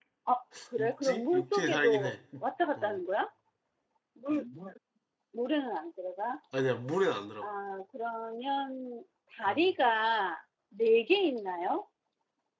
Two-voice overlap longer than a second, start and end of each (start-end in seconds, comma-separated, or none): 0.8-2.1